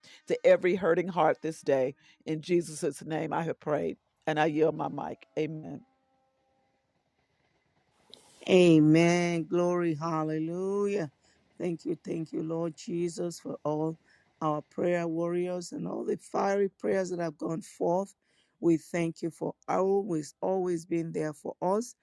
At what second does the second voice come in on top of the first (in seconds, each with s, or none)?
none